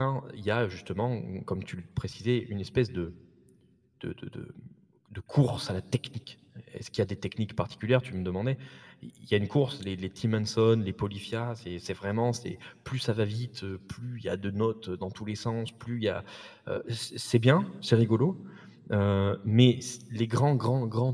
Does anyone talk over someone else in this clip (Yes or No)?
No